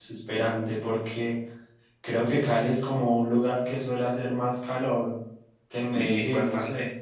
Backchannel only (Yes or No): No